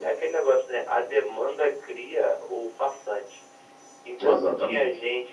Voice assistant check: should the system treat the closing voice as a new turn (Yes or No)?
No